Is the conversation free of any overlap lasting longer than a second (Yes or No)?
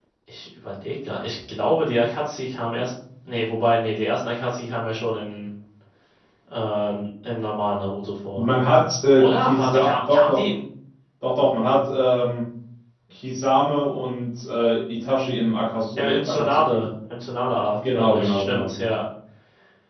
No